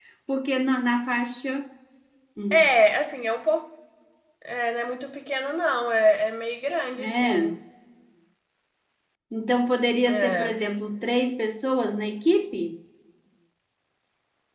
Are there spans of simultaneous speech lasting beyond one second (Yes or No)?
No